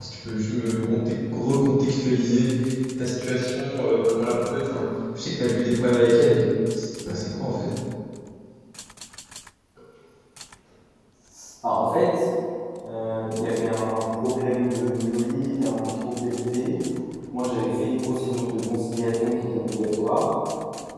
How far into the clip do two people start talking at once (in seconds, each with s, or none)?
none